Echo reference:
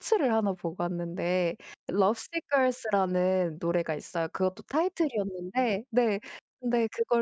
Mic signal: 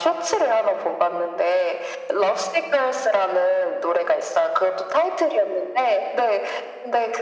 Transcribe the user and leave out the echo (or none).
none